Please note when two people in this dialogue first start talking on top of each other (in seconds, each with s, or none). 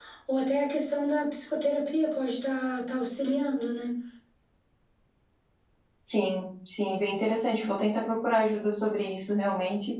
none